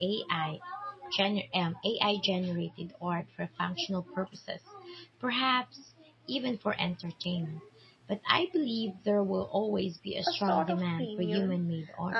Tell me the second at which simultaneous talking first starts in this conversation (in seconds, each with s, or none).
10.3 s